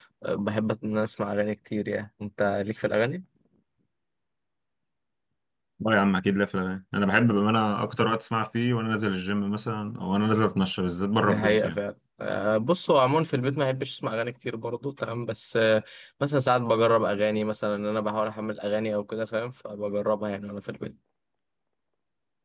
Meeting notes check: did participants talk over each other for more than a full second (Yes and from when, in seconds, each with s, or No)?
No